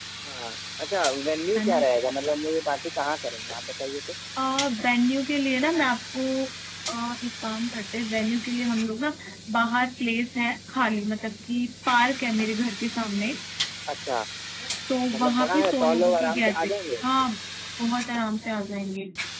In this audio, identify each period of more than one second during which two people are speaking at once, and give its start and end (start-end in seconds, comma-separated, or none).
15.1-16.8